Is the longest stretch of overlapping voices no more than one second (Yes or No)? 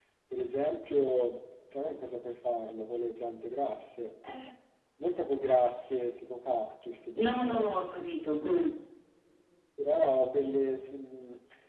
Yes